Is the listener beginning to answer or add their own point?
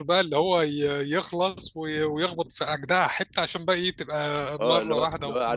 Yes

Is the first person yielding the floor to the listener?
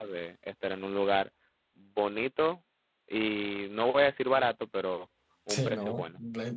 Yes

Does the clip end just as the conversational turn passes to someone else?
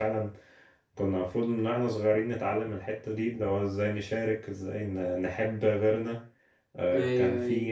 No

